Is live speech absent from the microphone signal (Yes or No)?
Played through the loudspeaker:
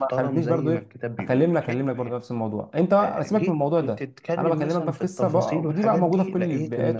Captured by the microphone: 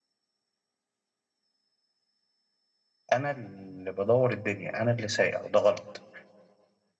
No